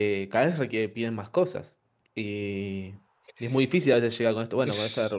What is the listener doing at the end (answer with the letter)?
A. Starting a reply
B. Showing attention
B